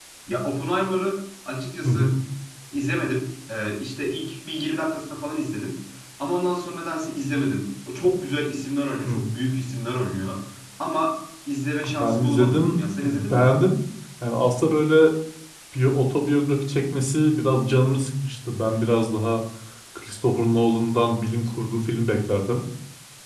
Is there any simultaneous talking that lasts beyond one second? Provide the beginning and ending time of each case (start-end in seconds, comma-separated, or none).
12.0-13.5